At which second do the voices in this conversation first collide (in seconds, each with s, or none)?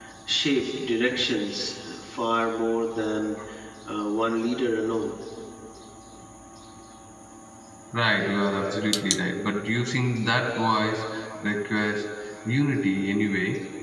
none